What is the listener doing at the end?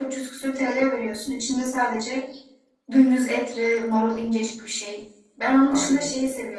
listening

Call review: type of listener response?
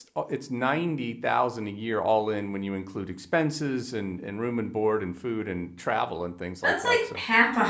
taking over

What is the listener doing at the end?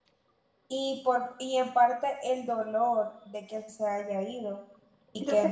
listening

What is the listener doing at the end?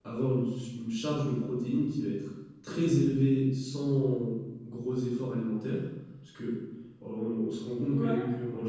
listening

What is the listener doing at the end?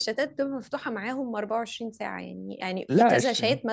listening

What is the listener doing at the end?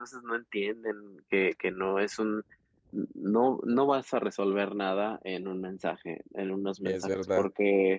listening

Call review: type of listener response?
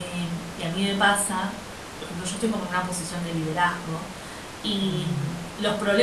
listening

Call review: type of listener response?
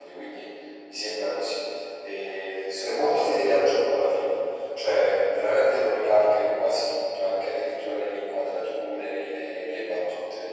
listening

